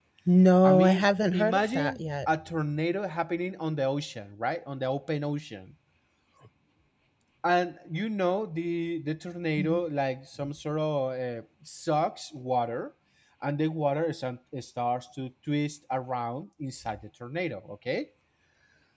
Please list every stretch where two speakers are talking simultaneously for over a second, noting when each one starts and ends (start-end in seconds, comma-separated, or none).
0.6-2.3